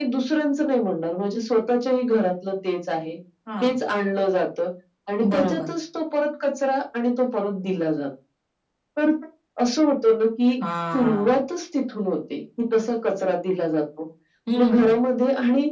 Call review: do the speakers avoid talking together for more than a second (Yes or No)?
Yes